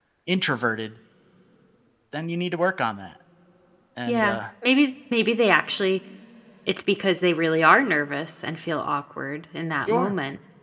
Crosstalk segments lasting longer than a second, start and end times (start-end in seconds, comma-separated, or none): none